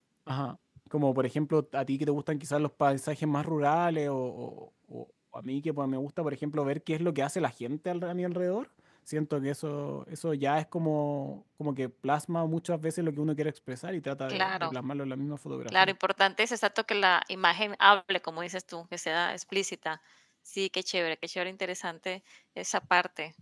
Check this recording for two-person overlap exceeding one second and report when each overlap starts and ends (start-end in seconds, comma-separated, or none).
none